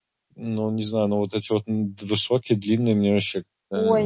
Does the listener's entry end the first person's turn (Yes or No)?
Yes